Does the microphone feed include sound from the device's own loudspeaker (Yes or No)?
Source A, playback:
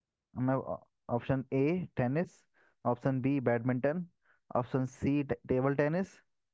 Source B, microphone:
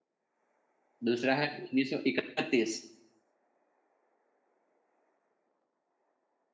No